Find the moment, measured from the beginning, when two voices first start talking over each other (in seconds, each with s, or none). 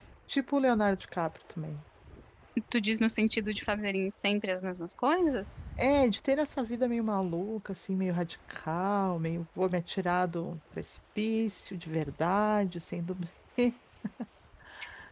none